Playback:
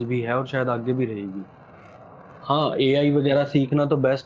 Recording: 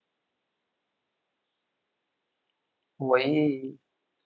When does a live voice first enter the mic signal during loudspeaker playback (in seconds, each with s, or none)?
3.1 s